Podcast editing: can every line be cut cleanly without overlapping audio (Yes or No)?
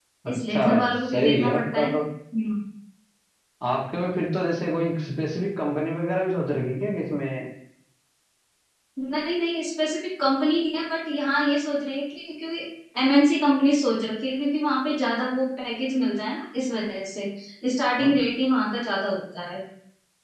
No